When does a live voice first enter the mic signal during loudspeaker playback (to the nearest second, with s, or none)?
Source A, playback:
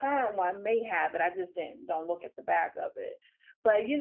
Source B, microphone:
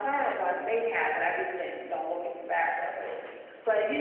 none